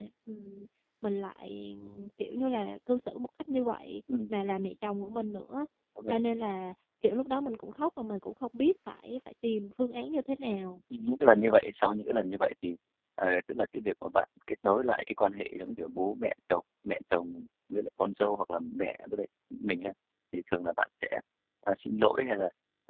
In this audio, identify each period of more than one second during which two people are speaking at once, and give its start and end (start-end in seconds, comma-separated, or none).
none